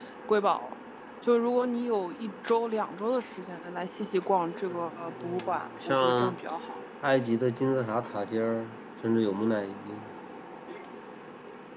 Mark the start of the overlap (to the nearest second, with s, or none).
5 s